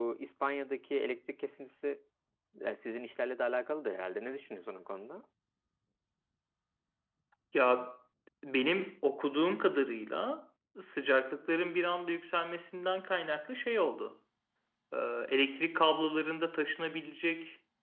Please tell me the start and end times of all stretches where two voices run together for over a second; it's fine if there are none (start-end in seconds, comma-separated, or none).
none